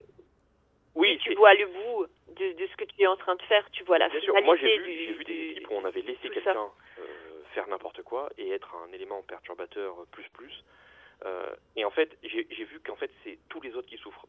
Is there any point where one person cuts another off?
Yes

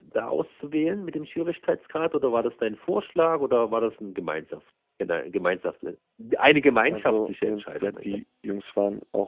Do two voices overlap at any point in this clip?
Yes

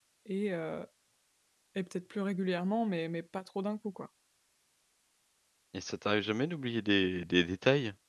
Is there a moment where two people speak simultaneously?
No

